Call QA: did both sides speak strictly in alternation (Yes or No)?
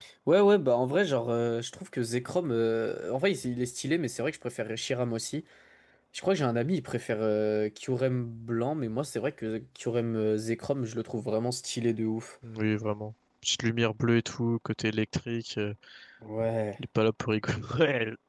Yes